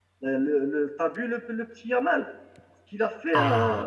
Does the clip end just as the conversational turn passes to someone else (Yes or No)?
Yes